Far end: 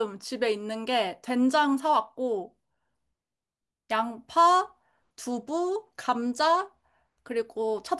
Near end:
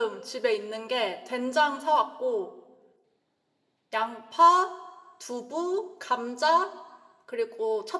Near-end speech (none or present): none